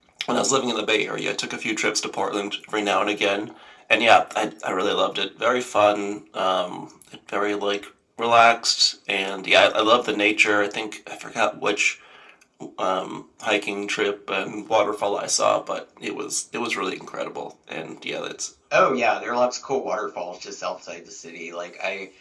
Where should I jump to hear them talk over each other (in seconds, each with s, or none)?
none